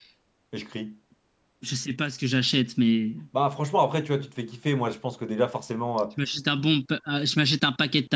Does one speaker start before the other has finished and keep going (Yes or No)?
No